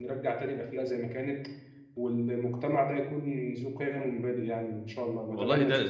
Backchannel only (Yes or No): No